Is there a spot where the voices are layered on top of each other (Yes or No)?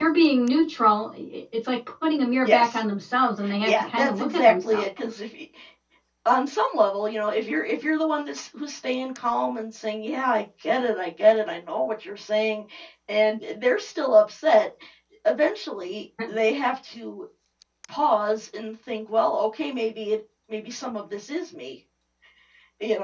Yes